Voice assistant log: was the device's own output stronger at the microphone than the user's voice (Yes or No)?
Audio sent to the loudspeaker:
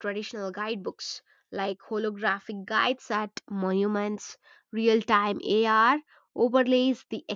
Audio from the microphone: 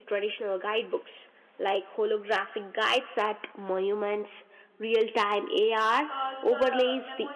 Yes